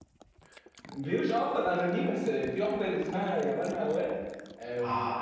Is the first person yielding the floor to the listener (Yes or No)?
Yes